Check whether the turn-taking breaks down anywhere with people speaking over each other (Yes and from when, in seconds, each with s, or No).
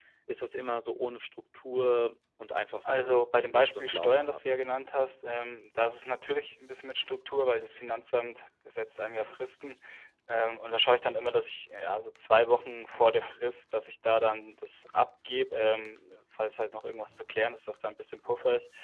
Yes, from 2.9 s